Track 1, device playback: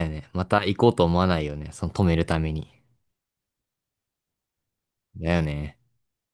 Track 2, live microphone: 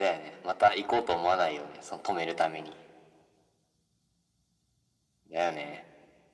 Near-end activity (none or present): none